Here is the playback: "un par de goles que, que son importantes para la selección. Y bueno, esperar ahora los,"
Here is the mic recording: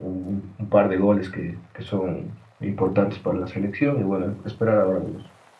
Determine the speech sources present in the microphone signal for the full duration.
echo only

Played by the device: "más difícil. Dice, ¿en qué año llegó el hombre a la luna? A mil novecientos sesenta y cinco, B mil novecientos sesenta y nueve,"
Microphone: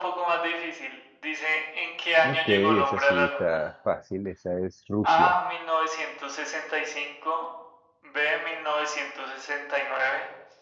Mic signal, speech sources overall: both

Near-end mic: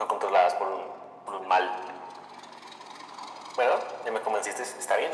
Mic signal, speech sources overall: echo only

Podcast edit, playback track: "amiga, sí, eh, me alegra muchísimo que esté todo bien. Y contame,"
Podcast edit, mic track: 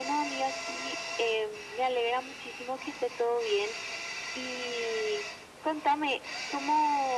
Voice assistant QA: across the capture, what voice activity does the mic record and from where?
echo only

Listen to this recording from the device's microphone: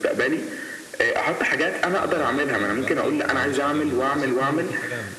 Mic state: both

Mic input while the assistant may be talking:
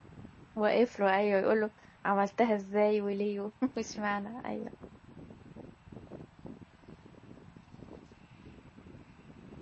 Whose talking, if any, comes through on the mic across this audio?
user only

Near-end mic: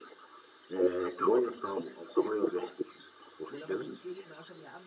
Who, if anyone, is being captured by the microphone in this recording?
both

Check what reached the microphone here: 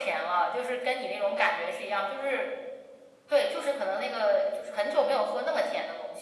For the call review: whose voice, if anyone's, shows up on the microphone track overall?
echo only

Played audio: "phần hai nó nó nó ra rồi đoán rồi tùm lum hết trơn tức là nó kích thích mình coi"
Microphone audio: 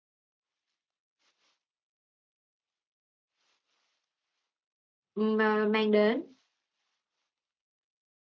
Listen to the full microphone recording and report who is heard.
user only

